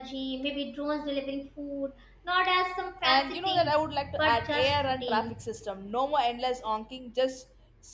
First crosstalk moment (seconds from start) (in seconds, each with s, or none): 3.0 s